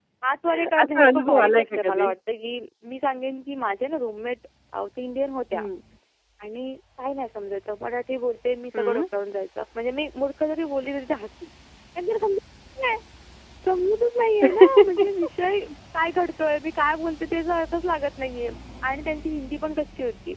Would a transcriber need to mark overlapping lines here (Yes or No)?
Yes